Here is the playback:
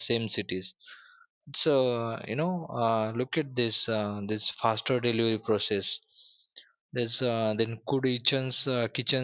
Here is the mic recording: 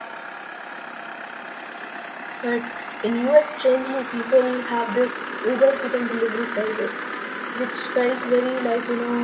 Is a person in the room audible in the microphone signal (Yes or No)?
Yes